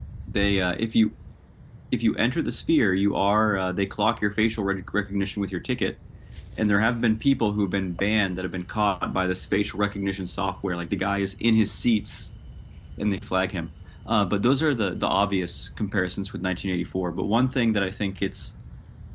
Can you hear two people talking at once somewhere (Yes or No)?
No